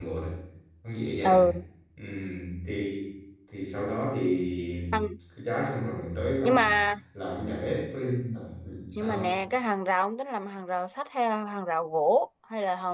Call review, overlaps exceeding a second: none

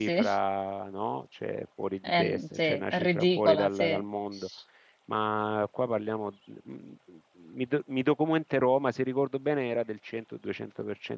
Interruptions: present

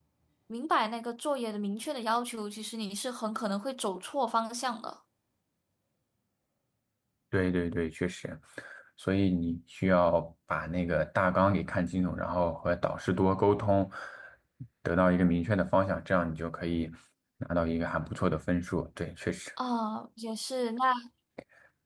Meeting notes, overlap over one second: none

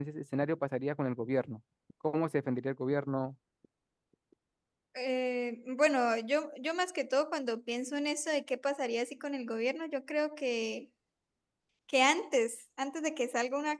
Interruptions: none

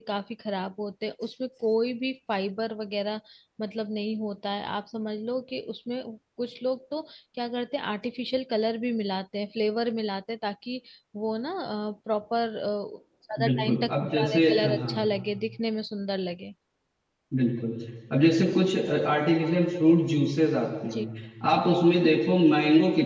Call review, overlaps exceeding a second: present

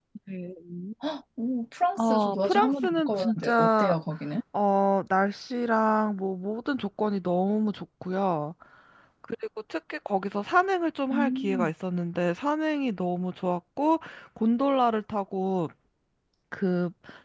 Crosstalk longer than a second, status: present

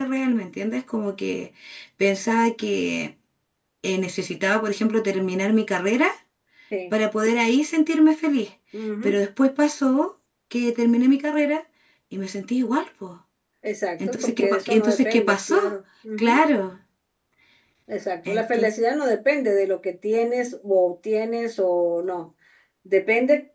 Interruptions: present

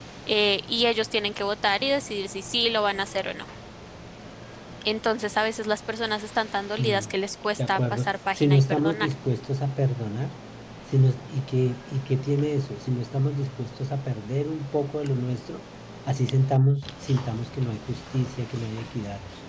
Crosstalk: present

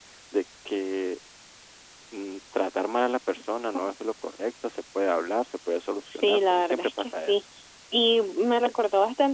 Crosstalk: present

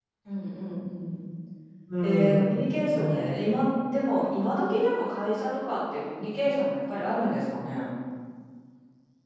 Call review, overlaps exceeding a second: present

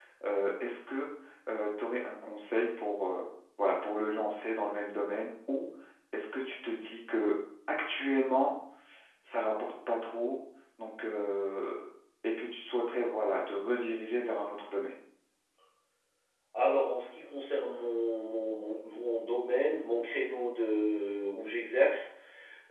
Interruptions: none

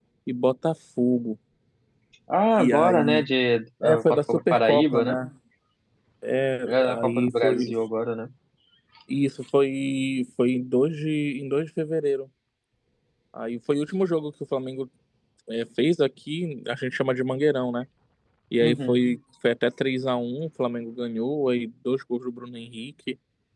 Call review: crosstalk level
present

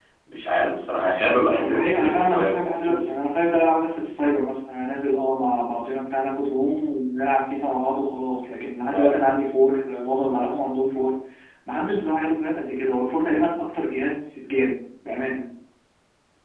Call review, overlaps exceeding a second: present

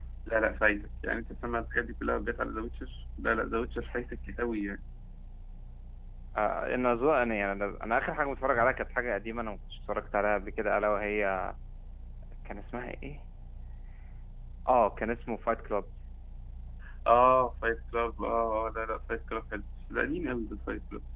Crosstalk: none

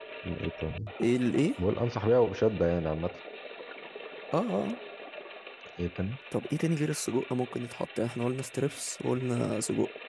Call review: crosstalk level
none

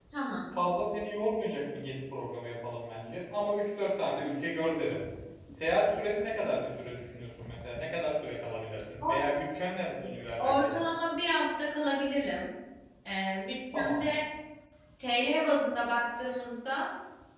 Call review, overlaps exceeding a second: none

